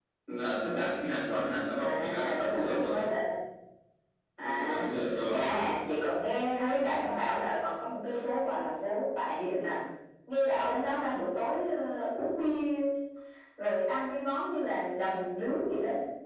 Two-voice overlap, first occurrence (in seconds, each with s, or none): 1.8 s